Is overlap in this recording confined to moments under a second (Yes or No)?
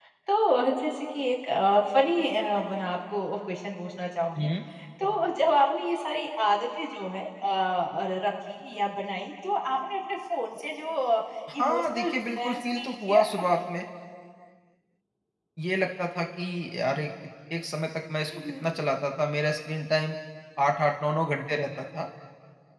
No